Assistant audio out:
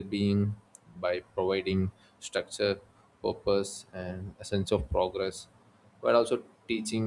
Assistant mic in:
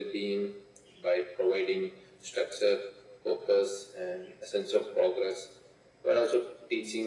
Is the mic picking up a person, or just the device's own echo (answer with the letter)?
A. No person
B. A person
A